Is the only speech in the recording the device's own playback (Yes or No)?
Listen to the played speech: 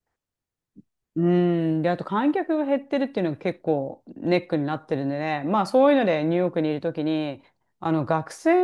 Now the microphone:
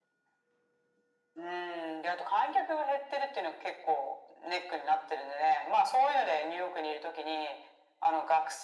Yes